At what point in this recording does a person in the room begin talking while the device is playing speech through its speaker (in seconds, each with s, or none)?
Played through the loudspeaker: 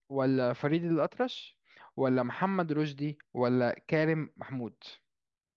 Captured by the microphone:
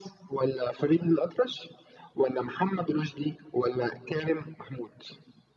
none